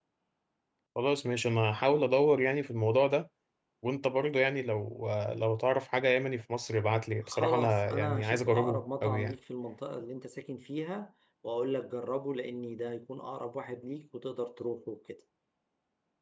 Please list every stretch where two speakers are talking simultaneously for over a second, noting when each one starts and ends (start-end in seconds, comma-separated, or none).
7.3-9.3